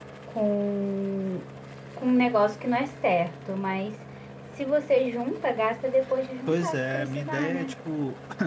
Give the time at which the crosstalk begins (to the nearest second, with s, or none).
6 s